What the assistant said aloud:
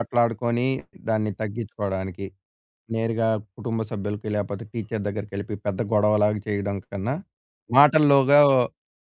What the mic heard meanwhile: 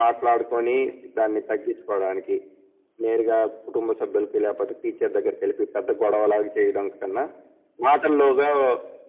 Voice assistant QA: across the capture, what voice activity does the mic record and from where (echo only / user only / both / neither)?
echo only